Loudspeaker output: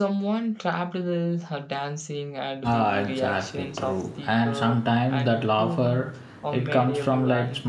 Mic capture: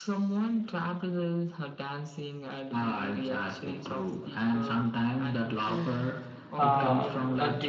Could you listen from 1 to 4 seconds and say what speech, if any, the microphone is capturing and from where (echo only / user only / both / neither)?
echo only